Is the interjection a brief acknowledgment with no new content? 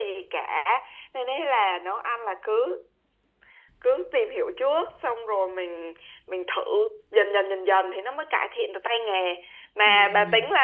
Yes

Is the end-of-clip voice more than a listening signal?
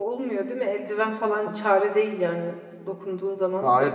Yes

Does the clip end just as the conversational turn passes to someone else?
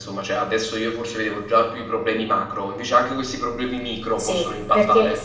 Yes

